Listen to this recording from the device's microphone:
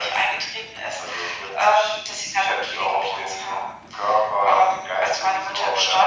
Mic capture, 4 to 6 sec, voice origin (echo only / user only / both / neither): echo only